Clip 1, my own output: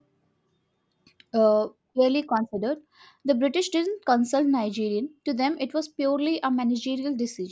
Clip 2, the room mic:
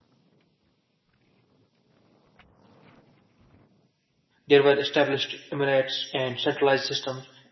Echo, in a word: none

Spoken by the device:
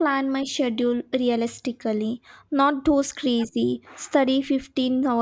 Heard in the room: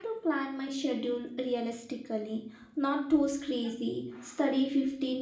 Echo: present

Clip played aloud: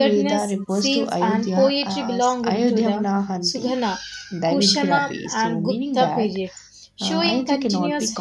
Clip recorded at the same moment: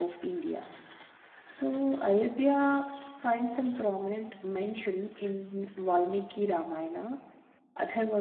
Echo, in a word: none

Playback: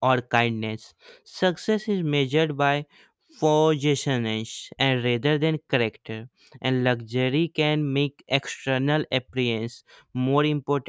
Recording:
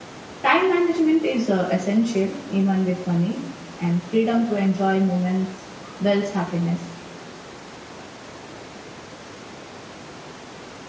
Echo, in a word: none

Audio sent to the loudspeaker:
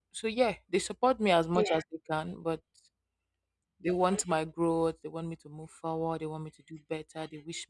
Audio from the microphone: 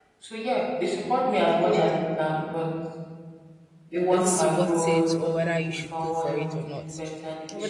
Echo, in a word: present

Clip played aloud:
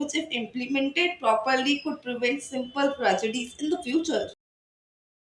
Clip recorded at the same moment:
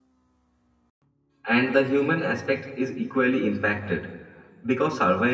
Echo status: none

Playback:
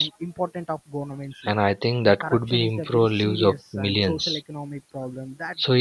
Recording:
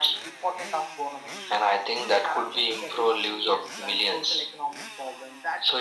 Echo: present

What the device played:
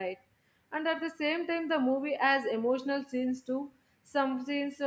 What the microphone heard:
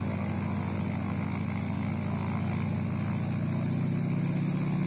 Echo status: none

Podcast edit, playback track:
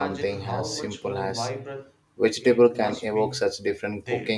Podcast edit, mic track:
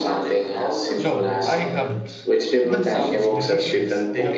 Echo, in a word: present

